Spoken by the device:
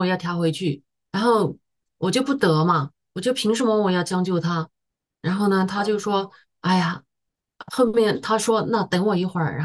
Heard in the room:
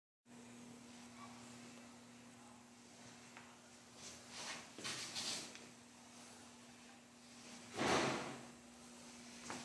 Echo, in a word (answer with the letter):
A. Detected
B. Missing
B